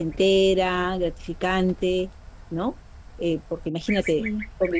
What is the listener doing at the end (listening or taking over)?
listening